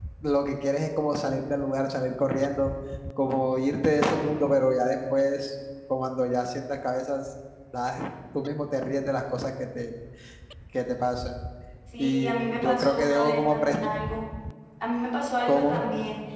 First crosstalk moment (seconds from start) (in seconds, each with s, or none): 12.0 s